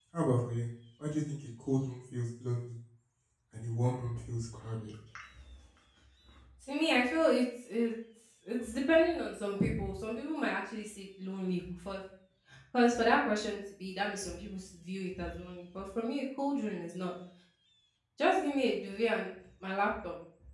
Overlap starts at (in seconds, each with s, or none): none